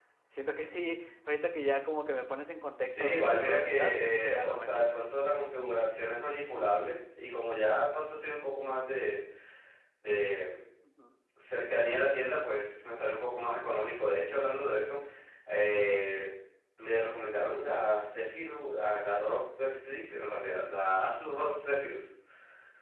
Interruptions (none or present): present